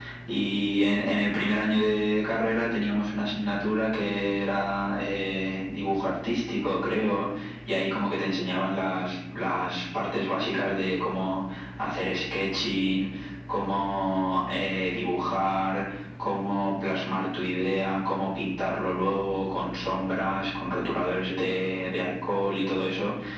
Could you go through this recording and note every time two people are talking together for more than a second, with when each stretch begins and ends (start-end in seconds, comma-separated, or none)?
none